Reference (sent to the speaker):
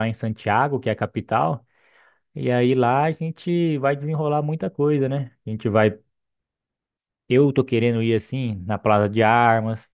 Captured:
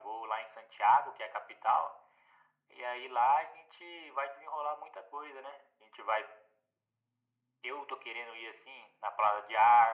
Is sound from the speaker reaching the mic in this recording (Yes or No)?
Yes